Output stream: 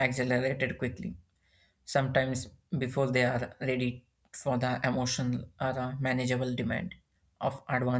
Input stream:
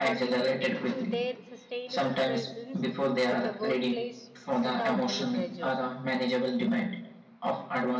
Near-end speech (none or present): present